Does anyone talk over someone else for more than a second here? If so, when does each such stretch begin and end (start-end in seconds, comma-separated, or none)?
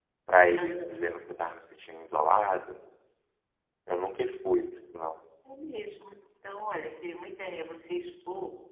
none